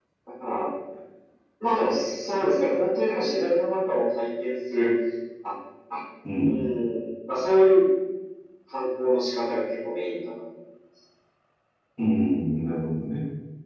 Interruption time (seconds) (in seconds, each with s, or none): none